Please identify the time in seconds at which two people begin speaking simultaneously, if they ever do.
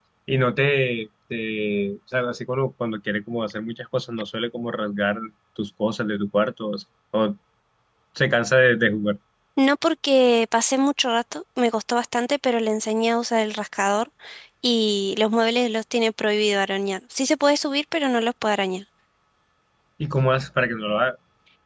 none

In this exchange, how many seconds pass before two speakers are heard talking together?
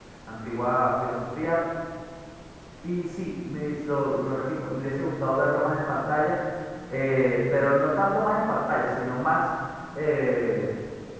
none

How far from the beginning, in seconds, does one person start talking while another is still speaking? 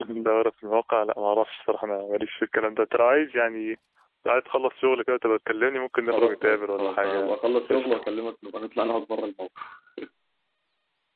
6 s

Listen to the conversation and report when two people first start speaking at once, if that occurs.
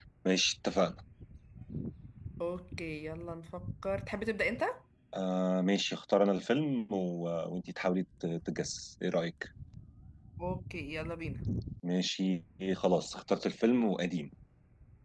none

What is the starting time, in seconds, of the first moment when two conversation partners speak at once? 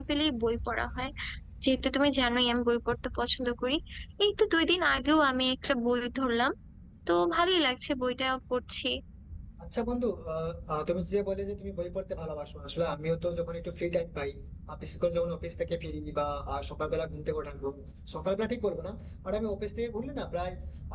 none

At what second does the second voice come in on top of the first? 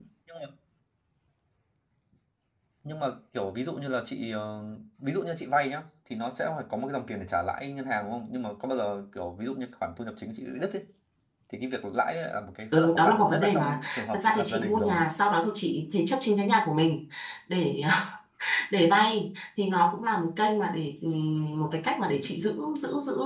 13 s

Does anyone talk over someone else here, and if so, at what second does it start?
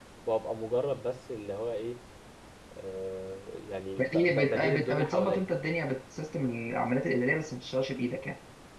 4 s

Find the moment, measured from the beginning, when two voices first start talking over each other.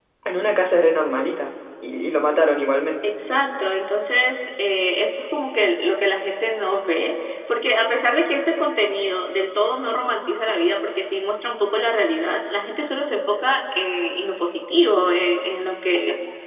none

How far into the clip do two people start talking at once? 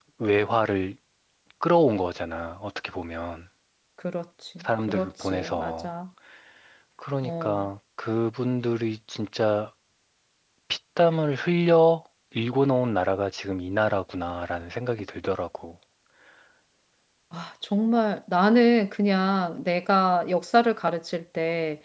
5 s

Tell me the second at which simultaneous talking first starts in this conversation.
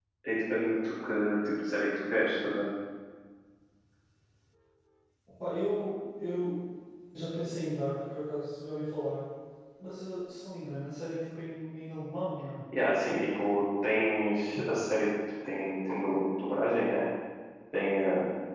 none

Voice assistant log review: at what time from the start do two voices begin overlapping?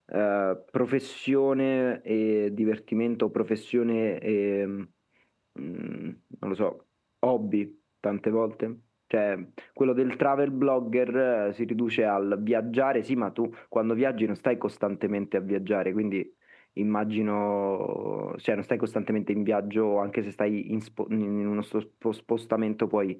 none

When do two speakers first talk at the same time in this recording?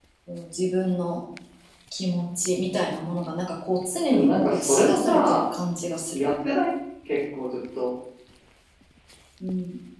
4 s

